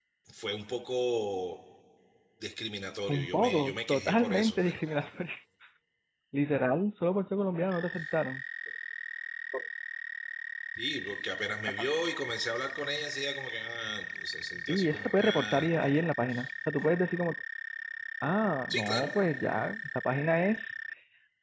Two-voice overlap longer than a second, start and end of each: 3.1-5.0, 14.7-16.0

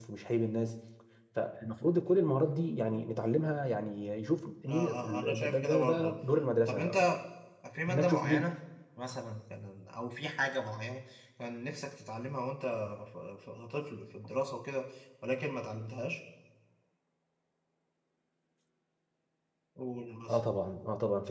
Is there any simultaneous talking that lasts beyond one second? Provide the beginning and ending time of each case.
4.7-6.2

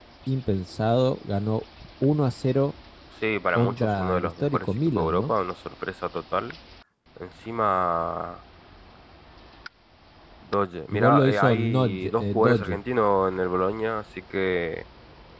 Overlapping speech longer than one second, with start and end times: 3.5-5.3, 10.9-12.8

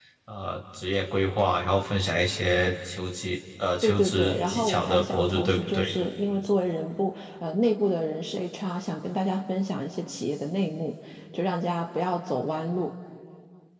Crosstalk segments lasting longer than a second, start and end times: 3.8-6.0

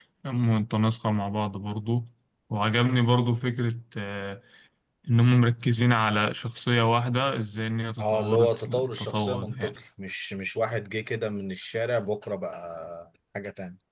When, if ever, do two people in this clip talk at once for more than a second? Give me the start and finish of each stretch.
8.0-9.8

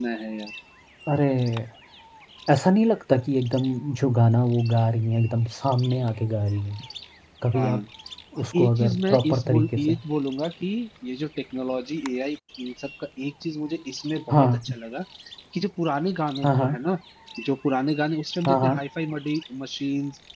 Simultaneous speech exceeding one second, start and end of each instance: 8.4-9.9

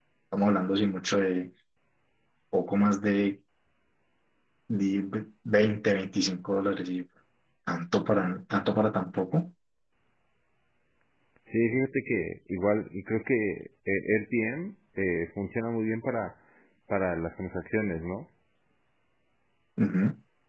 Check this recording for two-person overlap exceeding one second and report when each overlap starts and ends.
none

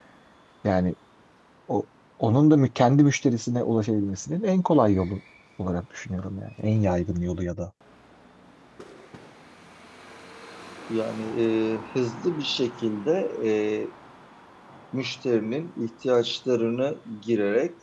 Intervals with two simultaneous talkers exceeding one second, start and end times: none

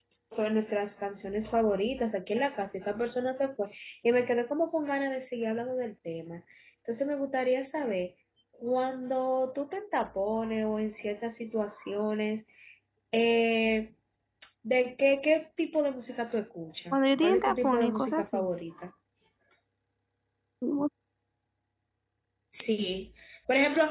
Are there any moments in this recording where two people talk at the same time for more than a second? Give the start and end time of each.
16.9-18.5

